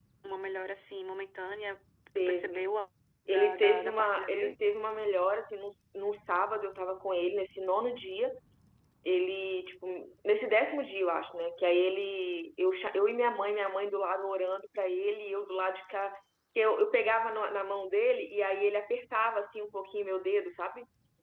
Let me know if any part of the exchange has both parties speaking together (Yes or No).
Yes